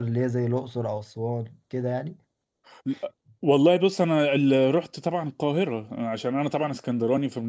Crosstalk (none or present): none